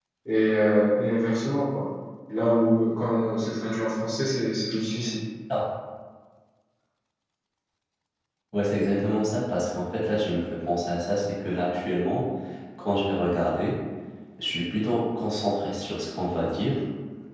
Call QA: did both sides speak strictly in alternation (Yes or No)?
Yes